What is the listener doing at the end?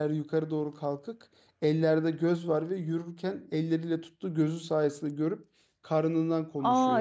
taking over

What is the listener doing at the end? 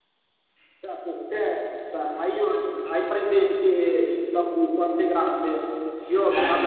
listening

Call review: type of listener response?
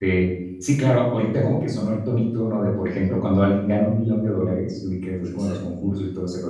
listening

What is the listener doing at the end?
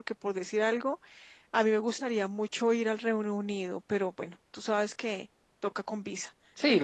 taking over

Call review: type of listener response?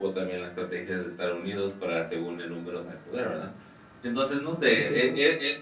listening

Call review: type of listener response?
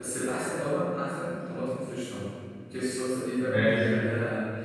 listening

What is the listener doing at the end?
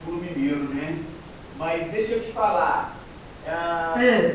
listening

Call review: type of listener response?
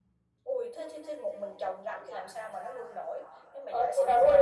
taking over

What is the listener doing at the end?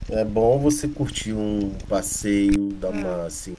listening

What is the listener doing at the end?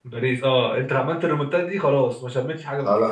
taking over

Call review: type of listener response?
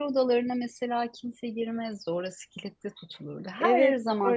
taking over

